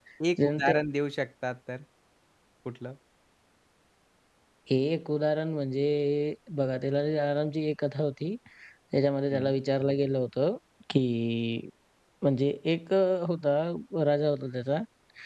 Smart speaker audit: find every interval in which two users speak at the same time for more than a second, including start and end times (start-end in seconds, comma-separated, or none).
none